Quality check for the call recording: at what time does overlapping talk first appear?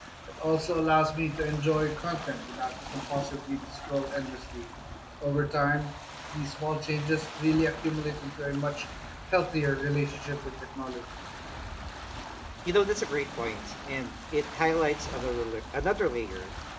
none

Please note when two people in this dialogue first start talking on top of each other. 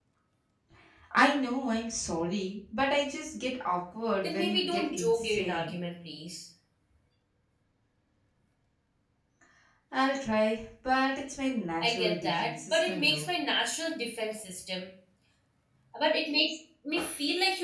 4.2 s

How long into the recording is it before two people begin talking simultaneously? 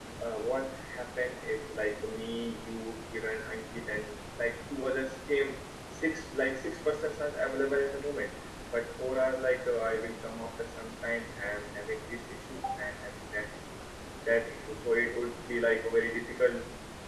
none

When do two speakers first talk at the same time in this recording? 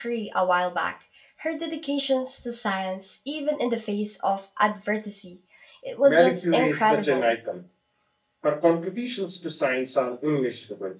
6.0 s

